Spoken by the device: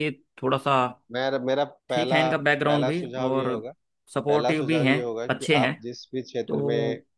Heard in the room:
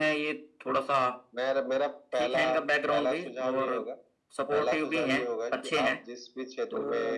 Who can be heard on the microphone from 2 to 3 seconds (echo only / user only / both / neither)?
echo only